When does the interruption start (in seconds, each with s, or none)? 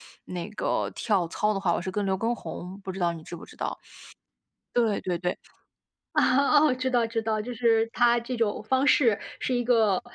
none